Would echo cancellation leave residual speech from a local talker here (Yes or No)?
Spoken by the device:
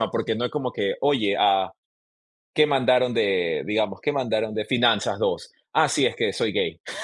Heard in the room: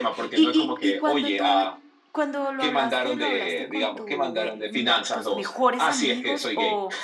Yes